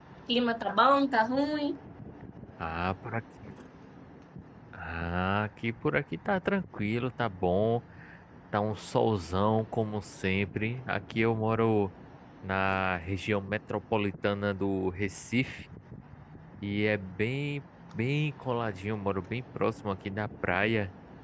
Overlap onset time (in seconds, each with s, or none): none